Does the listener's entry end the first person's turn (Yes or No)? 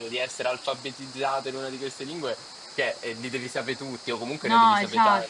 Yes